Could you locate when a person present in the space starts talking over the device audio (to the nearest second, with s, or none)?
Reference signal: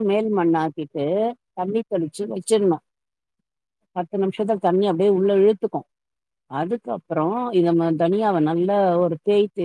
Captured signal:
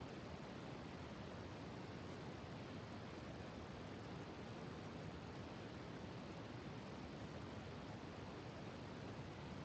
none